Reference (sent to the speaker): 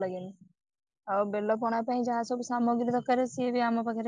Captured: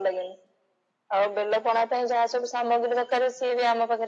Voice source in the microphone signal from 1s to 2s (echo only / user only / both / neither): echo only